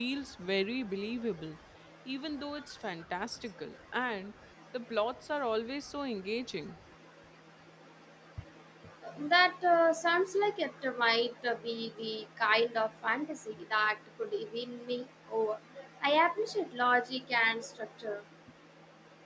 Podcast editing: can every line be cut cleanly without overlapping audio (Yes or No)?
Yes